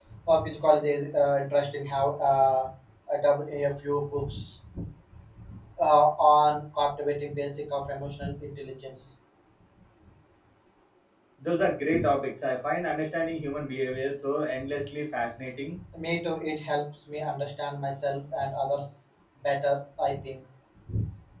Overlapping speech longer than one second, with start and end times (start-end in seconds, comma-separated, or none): none